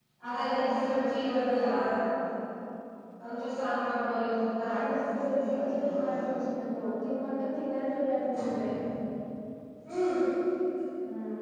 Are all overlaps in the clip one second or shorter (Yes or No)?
No